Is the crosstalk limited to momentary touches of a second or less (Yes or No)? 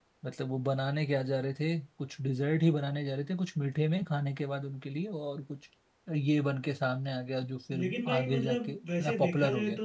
No